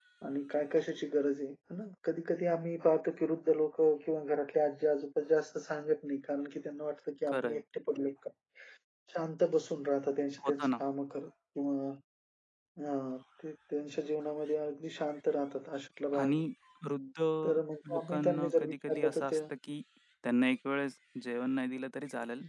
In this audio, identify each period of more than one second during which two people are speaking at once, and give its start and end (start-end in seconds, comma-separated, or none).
17.9-19.4